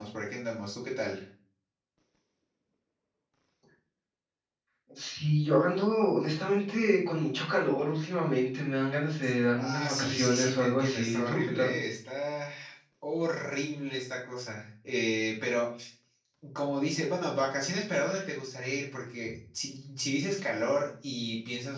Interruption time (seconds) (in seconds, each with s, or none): 9.6 s